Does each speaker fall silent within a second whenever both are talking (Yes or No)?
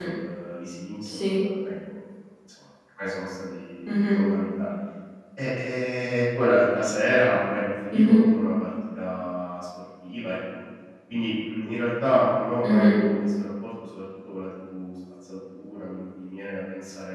Yes